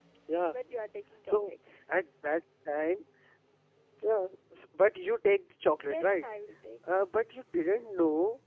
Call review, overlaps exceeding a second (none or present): none